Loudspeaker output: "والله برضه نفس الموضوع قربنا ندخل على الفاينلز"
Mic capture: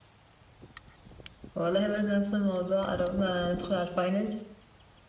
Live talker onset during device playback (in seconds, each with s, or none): none